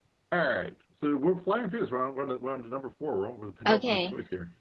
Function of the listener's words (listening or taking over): taking over